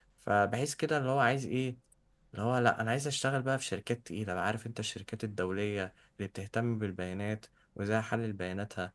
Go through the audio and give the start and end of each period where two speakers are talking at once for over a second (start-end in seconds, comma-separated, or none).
none